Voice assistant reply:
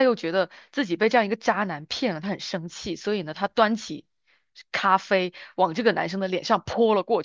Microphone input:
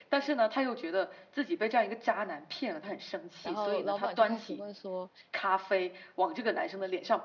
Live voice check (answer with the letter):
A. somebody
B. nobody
A